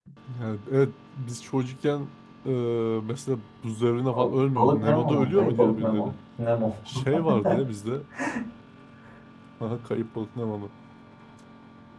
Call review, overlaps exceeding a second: present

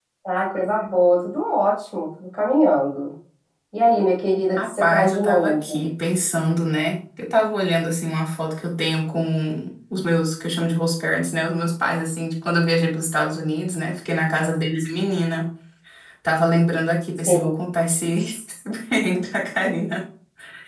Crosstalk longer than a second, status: present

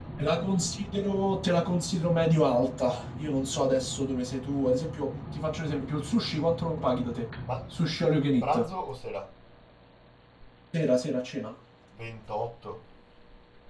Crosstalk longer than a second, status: none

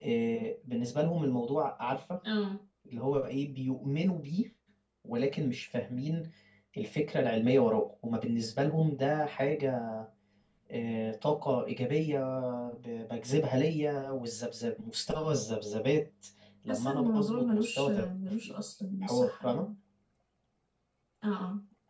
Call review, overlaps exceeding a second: present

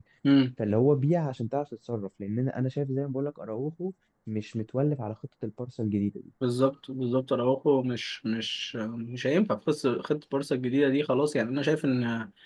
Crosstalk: none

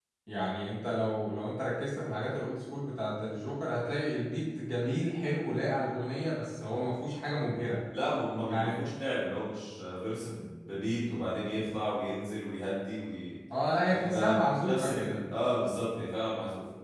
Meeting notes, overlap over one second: present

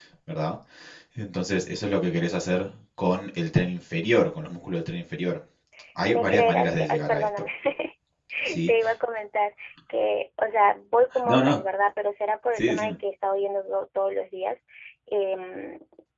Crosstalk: present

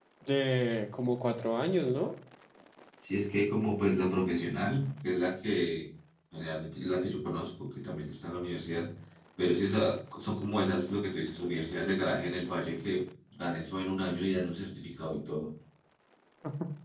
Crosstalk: none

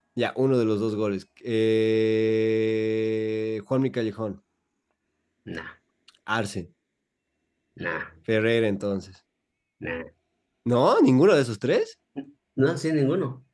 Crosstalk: none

